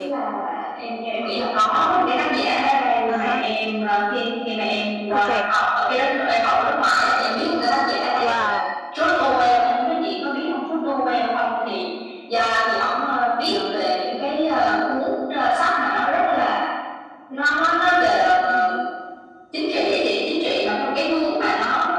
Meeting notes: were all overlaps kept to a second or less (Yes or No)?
Yes